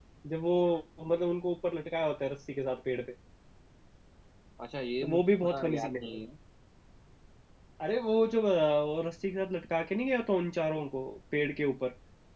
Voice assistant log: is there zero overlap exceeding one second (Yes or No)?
No